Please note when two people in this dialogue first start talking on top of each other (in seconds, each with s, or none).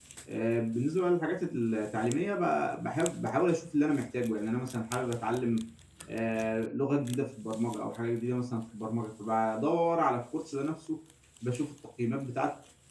none